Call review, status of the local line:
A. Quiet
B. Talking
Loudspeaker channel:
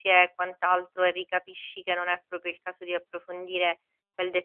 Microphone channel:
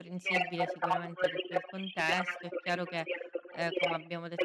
B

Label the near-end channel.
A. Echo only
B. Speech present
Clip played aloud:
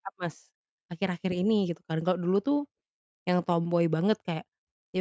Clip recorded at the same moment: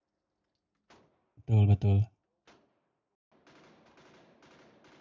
B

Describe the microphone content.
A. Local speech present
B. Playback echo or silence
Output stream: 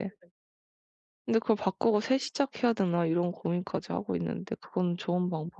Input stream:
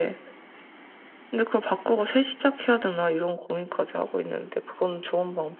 B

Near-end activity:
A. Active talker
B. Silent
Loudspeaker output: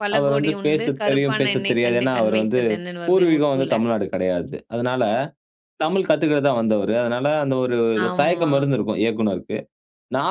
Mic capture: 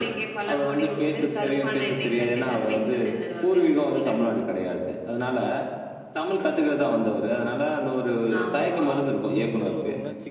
A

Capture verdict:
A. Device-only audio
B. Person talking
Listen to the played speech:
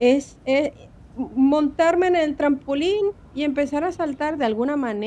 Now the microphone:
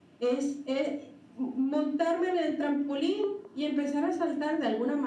A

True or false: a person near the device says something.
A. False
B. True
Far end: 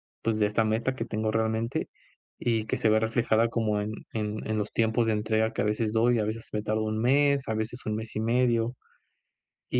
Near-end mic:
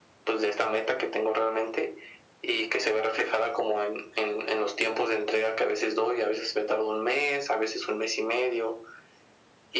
A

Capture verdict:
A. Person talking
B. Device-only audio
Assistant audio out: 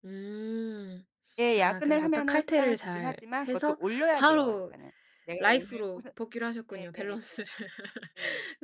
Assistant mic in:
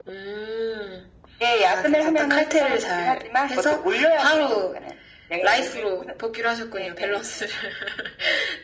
B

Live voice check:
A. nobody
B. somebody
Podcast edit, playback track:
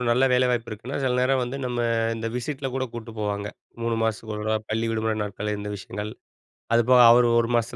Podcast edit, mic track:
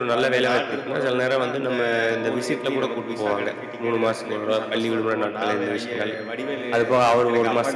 B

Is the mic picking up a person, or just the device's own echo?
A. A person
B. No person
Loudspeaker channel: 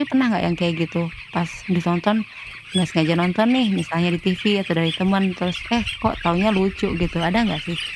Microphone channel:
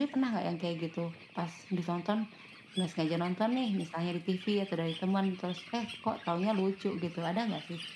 B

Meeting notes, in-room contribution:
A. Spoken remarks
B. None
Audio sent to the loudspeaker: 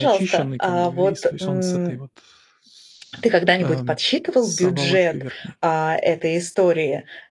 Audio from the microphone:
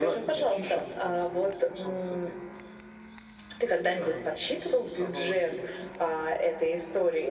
B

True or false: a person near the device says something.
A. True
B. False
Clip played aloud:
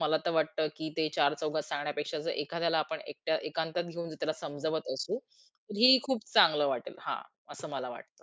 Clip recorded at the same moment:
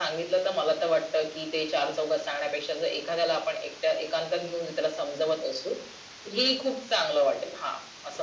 B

